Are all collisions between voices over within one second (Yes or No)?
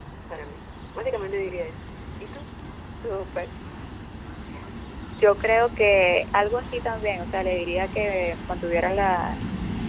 Yes